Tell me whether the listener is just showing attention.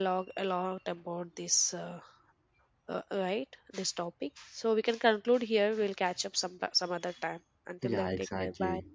No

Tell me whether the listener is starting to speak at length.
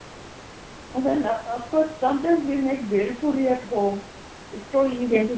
Yes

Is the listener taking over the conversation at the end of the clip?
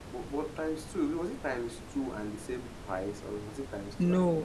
Yes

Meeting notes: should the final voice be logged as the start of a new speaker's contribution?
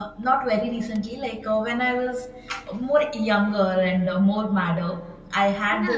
No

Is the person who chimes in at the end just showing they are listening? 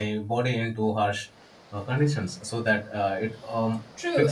No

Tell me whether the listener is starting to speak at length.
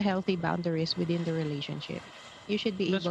No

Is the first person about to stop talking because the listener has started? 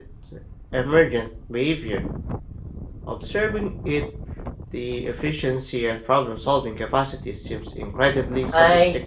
Yes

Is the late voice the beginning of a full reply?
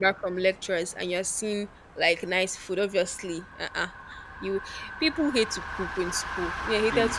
Yes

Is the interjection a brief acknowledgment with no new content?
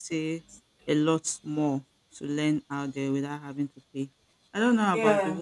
Yes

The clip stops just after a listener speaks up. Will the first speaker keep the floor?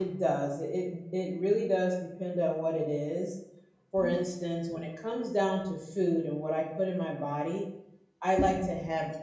Yes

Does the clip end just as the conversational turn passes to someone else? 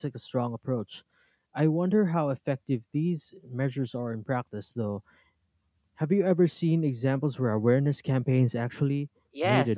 Yes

